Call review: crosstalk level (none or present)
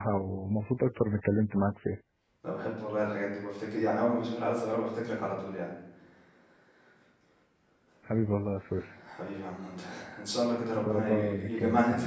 present